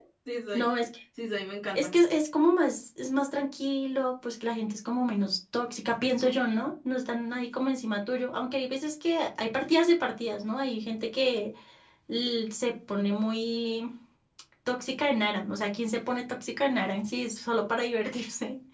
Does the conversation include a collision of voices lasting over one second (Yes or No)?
No